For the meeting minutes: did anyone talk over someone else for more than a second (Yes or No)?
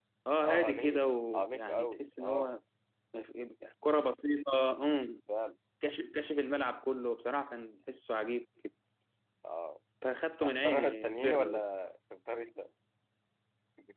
Yes